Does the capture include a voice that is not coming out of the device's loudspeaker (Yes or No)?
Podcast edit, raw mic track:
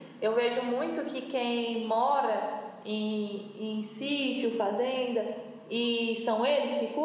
No